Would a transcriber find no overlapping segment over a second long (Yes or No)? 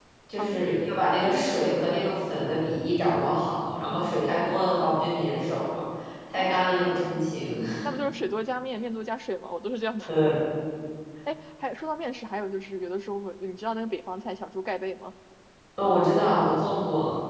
Yes